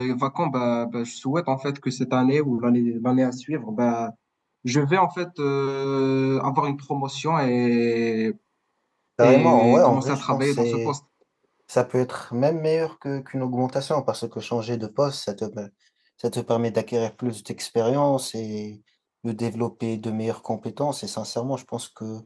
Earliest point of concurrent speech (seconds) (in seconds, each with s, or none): 9.2 s